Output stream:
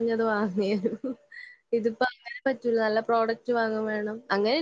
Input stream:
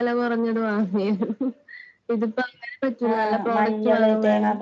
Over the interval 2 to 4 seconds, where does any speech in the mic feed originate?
both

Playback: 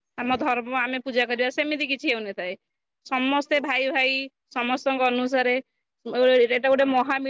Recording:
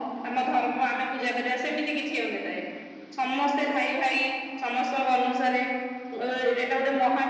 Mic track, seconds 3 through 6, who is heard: echo only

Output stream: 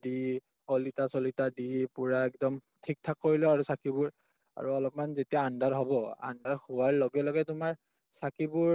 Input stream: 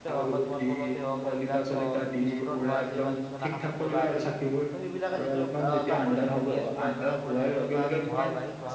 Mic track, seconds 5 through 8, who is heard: both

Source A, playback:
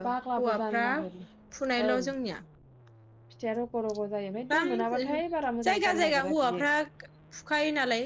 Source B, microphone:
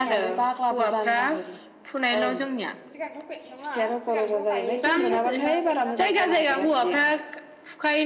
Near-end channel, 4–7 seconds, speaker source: both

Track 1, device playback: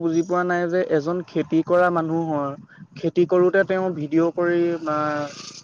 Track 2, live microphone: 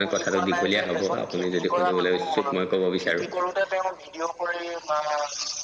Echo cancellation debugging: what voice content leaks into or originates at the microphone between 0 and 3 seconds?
both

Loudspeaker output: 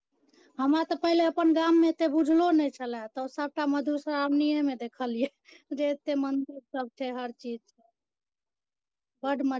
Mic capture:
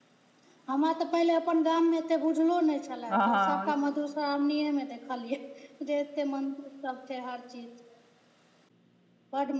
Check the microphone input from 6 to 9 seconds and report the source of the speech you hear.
echo only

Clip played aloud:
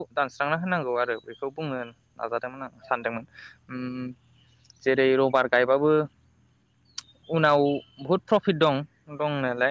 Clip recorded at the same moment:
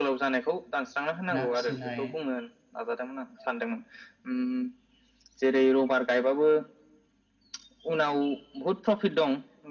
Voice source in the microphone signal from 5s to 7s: echo only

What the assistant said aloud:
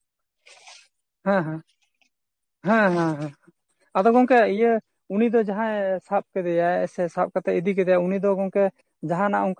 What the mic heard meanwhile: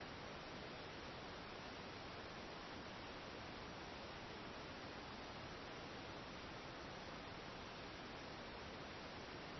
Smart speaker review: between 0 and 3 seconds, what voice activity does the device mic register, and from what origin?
neither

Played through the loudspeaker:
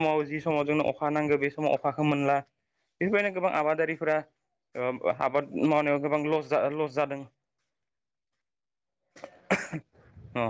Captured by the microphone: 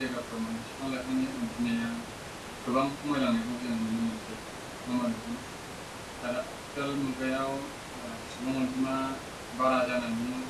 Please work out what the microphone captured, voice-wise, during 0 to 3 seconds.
user only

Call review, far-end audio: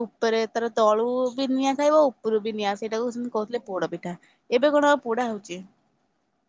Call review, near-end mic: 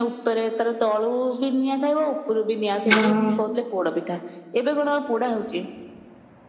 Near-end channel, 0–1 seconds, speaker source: echo only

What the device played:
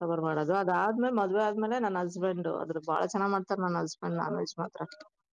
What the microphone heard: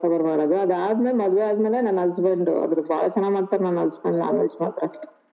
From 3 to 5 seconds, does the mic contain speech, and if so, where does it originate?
echo only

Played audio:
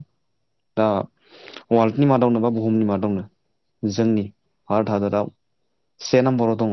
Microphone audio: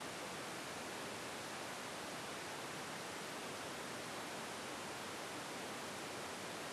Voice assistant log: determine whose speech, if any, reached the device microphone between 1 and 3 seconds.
neither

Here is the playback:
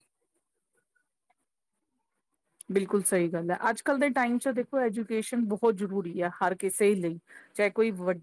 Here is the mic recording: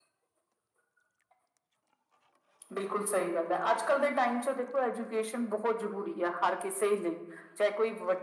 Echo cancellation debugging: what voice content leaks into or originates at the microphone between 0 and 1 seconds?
neither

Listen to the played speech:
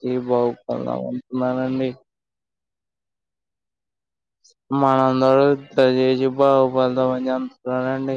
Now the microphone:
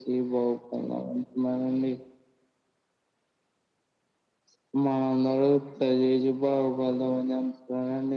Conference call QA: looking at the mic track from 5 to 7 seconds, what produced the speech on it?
echo only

